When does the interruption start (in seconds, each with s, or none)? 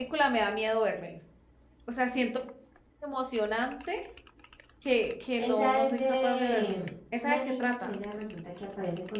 5.4 s